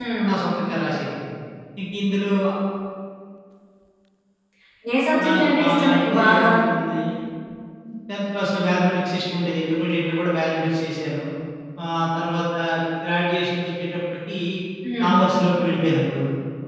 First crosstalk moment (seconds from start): 5.2 s

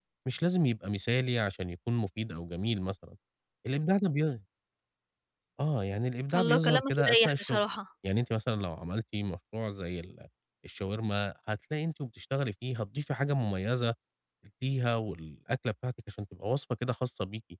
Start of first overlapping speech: 6.3 s

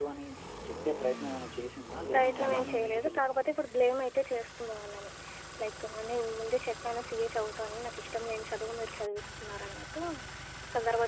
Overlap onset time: 2.1 s

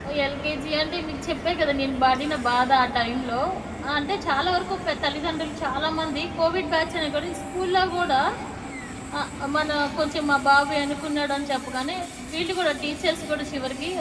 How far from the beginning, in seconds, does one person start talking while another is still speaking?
none

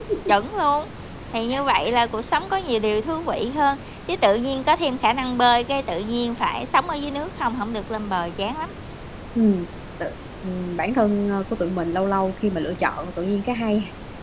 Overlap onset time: none

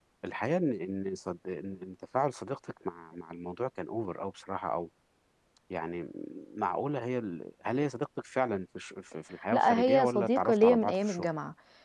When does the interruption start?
9.5 s

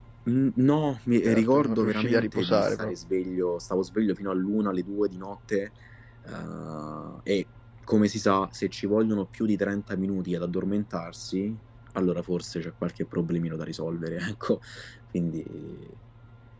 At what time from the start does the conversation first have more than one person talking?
1.3 s

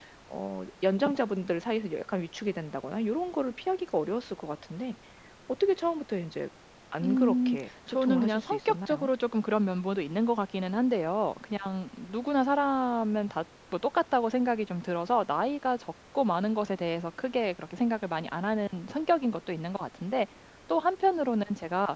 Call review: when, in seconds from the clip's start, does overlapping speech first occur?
7.0 s

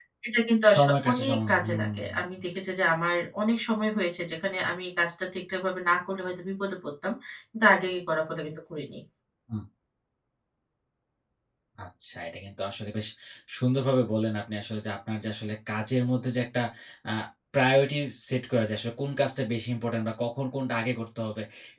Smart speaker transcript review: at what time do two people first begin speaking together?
0.7 s

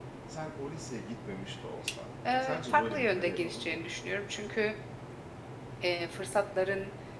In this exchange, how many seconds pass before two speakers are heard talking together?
2.2 s

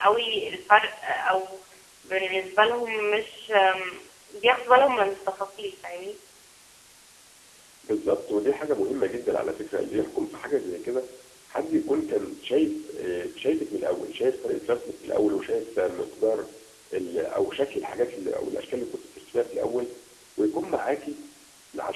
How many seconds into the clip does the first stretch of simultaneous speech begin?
none

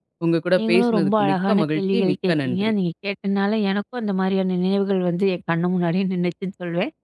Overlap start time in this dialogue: 0.6 s

